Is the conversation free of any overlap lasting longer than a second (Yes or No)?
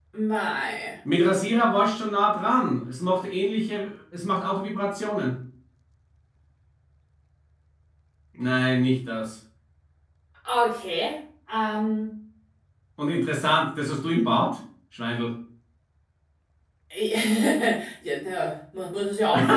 Yes